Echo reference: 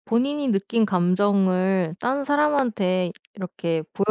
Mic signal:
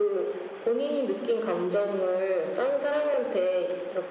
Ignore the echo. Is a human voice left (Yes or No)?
No